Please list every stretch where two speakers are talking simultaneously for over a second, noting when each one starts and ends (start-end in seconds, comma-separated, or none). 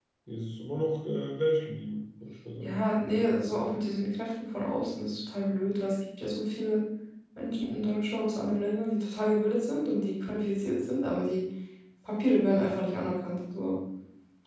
none